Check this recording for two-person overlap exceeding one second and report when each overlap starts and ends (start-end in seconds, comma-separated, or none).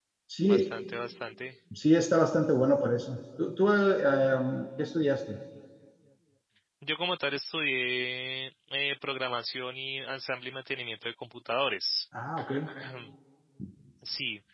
none